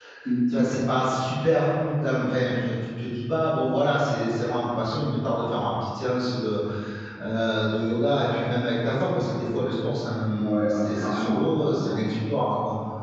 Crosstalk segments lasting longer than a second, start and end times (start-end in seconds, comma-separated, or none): 10.4-12.0